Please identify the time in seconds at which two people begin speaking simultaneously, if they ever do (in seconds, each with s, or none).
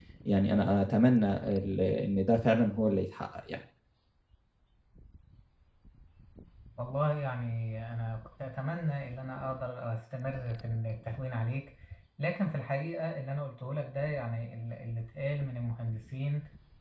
none